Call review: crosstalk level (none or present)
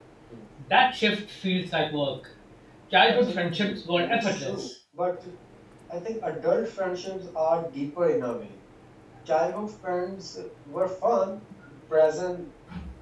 present